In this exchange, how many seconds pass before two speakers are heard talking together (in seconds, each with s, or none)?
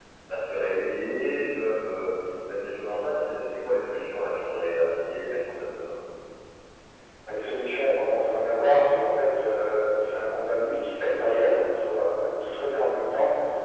none